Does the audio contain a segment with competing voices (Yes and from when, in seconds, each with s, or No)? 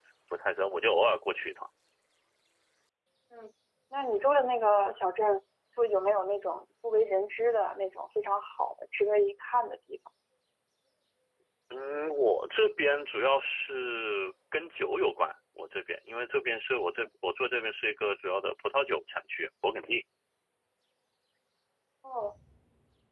No